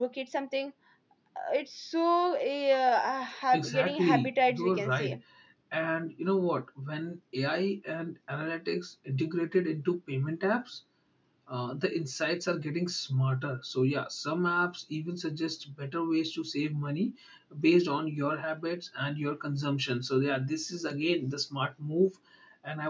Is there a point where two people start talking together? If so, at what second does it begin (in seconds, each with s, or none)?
3.5 s